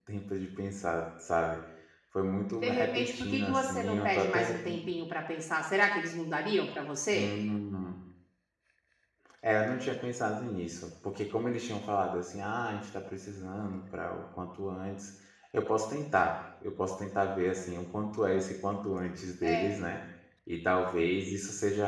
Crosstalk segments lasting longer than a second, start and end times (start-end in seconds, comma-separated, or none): 2.6-4.5